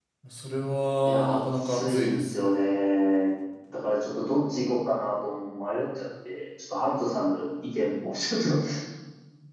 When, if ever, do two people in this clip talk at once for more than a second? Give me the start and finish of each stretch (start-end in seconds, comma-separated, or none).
1.0-2.5